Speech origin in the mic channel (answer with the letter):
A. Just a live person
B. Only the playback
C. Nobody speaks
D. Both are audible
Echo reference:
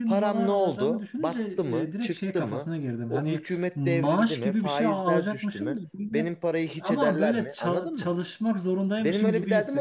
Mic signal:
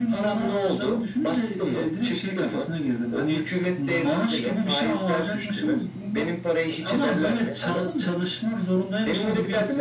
B